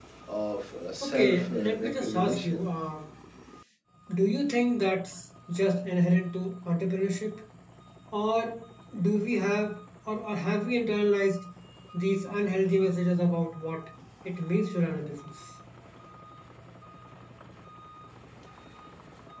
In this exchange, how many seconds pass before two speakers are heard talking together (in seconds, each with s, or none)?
1.0 s